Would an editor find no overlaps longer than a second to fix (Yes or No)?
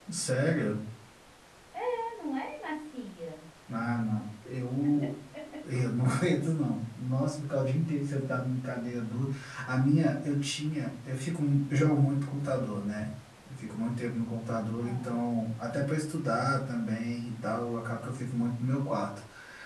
Yes